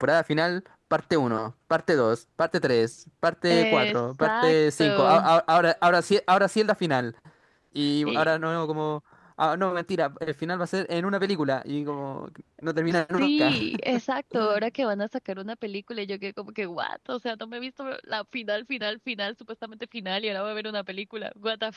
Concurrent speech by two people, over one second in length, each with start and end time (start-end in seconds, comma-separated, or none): 3.5-5.3